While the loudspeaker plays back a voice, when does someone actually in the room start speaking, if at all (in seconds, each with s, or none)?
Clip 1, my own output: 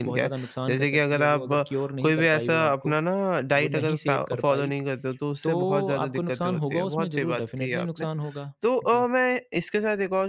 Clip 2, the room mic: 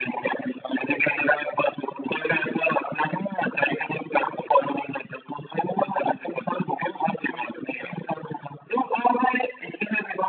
none